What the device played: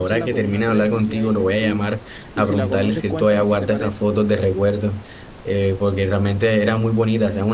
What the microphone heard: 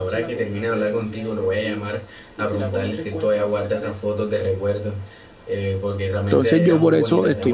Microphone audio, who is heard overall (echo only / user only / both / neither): both